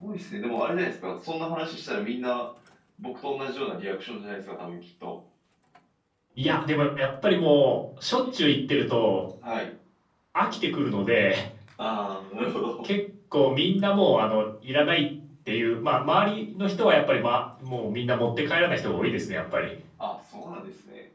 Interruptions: none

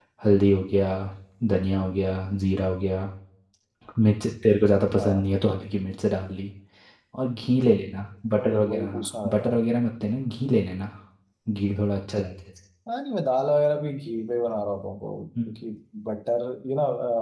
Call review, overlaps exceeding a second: present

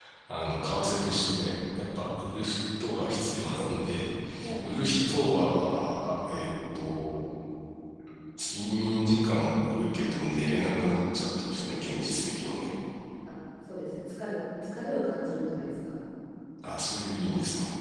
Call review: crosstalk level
none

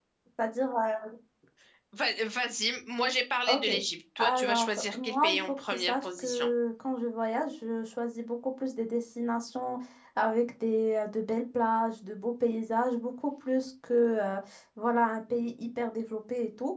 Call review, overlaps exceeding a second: present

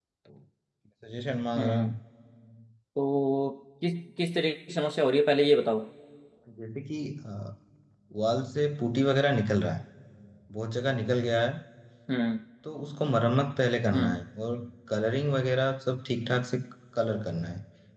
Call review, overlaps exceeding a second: none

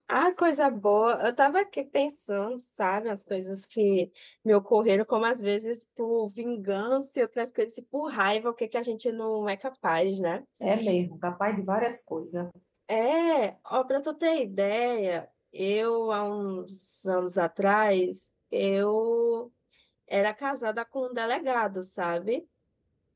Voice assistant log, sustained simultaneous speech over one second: none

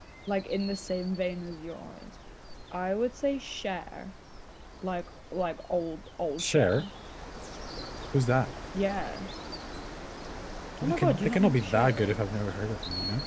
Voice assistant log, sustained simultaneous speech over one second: present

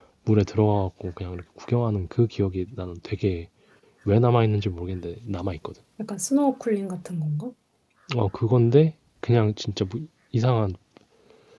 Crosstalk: none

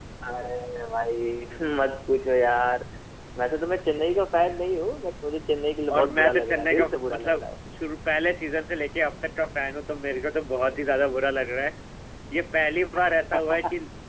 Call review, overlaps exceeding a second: present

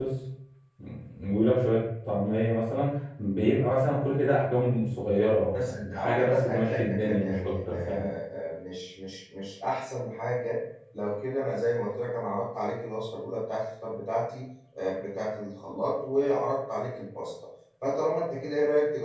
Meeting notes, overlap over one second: present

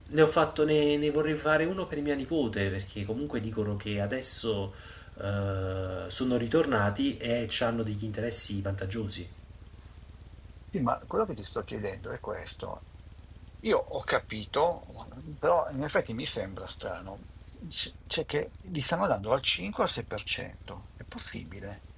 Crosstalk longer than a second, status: none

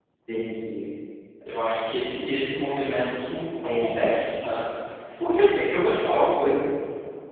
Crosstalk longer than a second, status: none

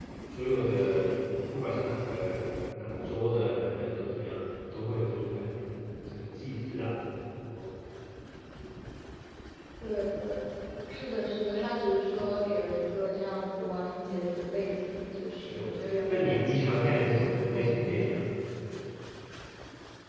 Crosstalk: present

